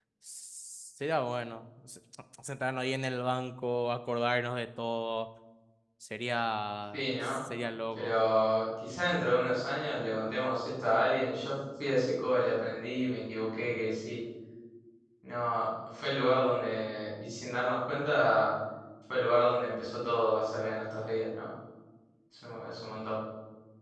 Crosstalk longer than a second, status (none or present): none